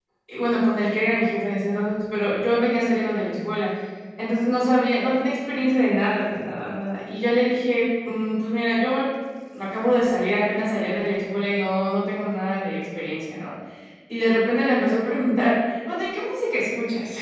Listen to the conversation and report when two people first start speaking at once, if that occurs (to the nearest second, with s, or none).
none